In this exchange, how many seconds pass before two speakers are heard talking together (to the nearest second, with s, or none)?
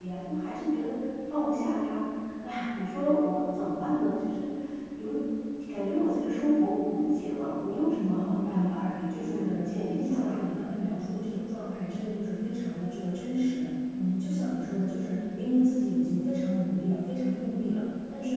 8 s